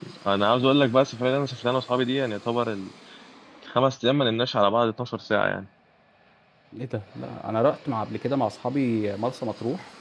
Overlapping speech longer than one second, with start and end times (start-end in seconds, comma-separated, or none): none